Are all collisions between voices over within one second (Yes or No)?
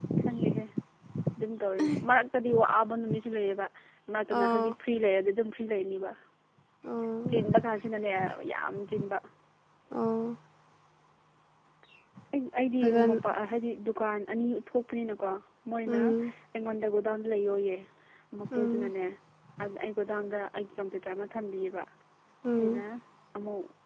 Yes